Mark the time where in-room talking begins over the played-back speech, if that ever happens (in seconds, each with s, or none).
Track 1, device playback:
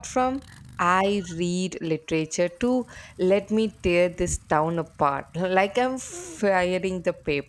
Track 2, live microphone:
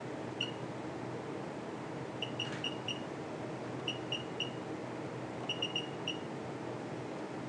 none